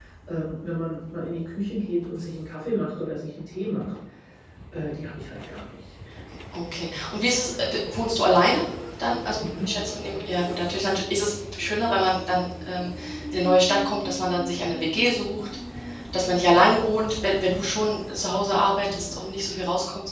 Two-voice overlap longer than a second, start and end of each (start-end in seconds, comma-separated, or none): none